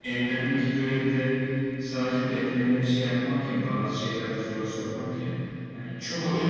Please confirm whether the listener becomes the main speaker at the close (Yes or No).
No